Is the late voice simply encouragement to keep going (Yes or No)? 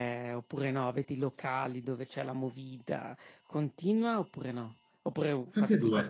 No